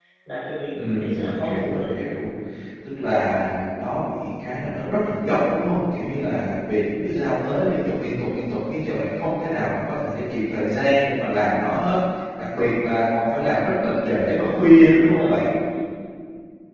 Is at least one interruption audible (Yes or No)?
Yes